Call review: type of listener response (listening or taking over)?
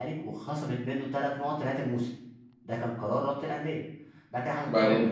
listening